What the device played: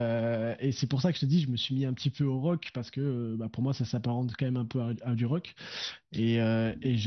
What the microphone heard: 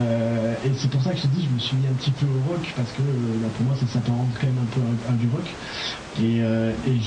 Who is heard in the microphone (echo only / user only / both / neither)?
echo only